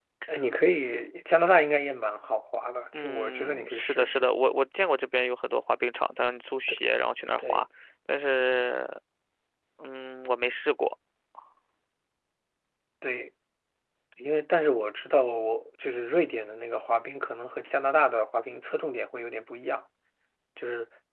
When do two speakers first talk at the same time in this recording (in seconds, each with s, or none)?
2.9 s